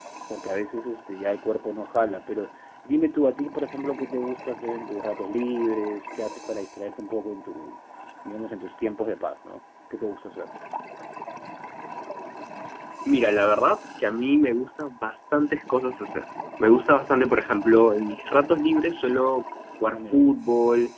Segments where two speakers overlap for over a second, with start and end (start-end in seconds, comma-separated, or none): none